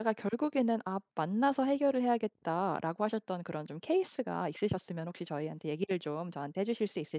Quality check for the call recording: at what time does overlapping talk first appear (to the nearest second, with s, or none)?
none